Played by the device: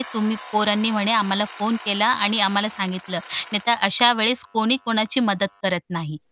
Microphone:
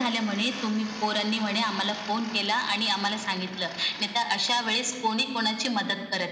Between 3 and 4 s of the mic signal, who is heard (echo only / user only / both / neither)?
echo only